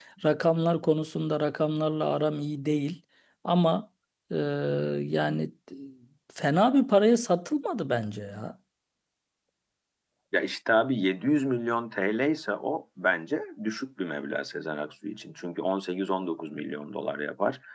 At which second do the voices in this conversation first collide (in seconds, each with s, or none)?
none